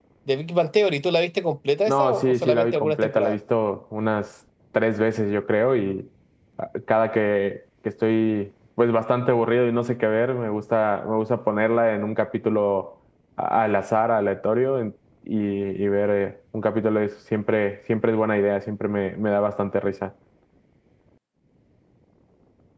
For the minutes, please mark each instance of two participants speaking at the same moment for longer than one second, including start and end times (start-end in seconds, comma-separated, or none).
1.9-3.4